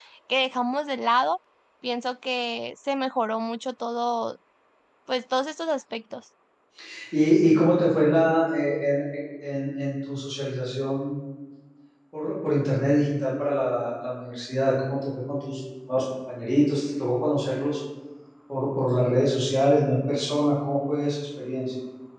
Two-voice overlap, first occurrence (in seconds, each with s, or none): none